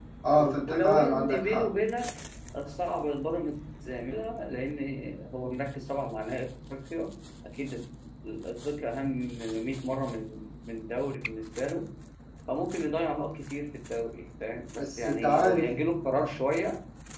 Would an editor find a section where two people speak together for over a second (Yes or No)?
Yes